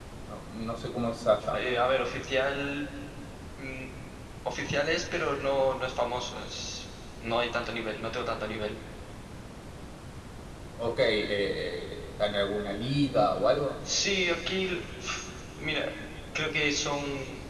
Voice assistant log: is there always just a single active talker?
Yes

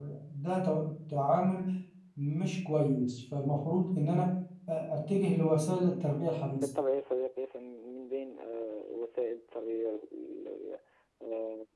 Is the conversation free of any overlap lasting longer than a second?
Yes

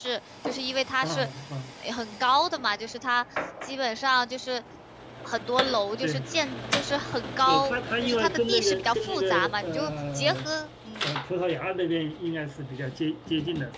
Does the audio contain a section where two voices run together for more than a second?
Yes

